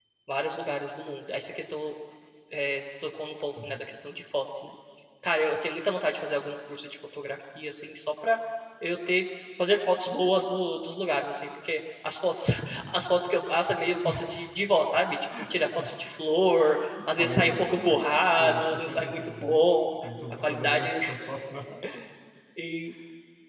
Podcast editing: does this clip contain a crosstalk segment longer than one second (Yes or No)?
Yes